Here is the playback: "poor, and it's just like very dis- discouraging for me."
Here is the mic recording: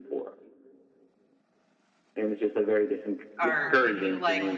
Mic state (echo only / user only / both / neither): both